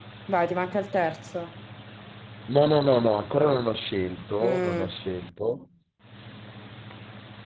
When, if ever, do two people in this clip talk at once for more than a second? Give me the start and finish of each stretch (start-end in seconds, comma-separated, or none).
none